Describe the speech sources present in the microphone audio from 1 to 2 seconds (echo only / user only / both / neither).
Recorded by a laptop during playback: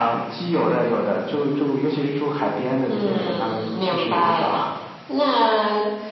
echo only